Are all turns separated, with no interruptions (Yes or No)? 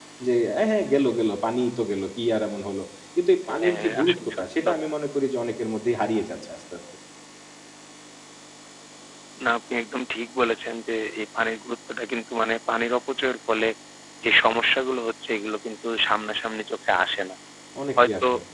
No